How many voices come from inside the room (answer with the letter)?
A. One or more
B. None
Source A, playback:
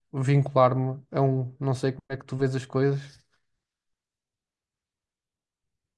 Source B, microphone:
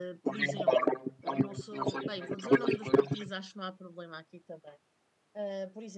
A